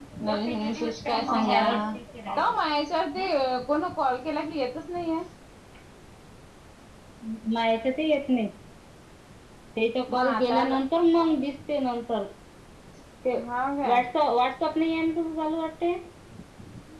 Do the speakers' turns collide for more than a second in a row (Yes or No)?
Yes